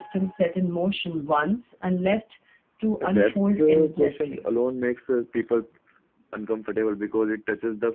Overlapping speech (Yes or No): Yes